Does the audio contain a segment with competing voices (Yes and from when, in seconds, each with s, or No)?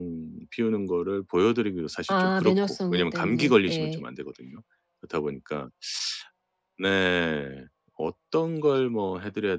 Yes, from 2.1 s